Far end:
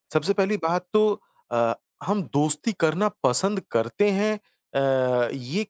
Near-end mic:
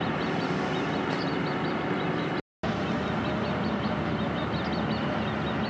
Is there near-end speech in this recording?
No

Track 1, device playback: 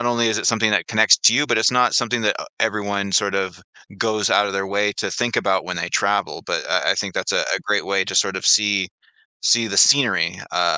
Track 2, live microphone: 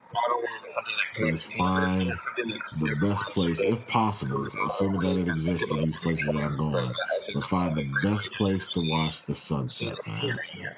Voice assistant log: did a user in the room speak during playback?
Yes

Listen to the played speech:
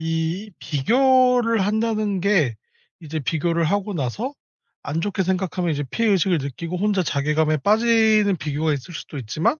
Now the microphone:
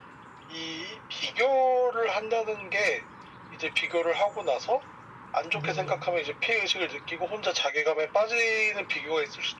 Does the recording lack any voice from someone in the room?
No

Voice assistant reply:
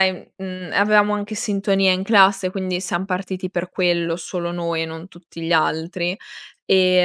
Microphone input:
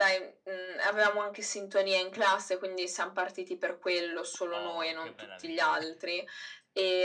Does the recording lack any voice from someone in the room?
No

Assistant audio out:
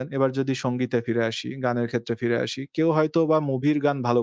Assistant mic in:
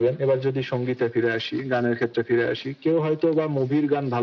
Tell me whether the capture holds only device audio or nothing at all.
Yes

